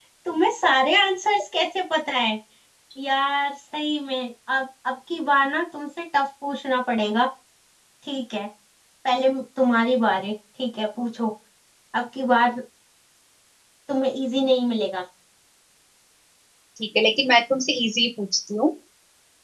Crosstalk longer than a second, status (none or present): none